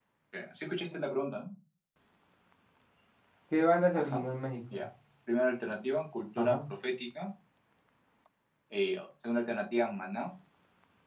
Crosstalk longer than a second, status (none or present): none